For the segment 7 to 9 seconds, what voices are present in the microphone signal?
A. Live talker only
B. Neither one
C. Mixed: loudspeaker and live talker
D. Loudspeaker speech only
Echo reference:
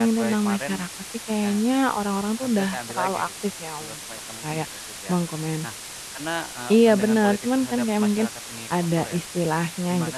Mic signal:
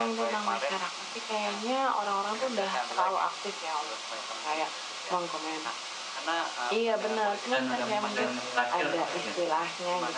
C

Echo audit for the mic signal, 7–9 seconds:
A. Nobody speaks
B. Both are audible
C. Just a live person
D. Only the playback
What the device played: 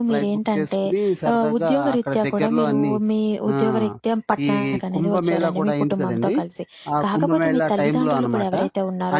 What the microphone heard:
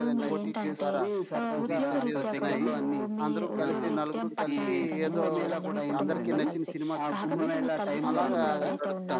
B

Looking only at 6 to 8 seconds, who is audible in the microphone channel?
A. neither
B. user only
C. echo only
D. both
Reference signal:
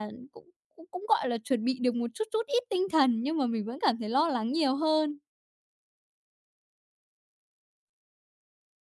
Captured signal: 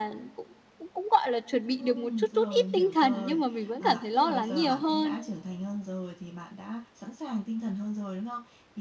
B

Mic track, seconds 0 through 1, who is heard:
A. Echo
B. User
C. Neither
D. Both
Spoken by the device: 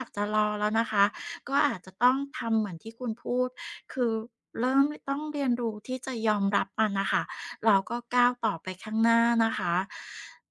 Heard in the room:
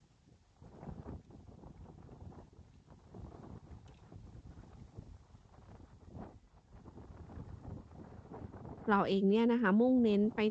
C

